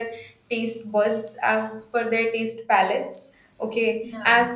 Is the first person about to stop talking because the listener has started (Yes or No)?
No